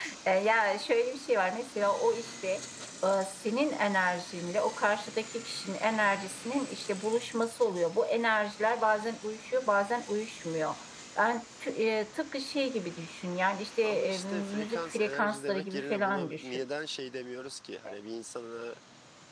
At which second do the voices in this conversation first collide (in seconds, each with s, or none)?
13.8 s